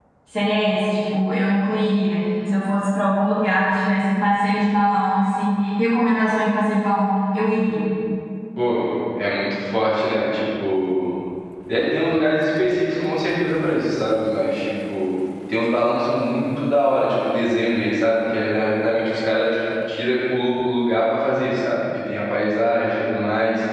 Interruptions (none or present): none